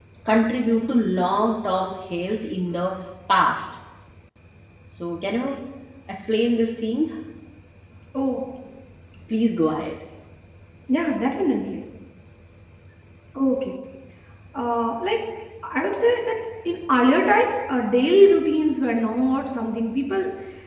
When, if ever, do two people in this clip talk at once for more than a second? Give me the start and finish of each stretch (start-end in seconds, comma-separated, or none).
none